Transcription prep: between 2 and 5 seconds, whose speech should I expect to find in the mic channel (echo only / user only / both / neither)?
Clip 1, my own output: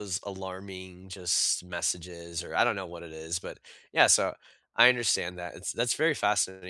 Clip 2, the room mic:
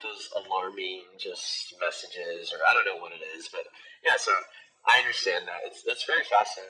echo only